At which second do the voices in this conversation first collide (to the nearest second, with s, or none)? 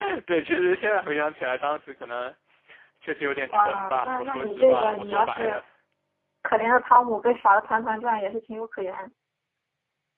4 s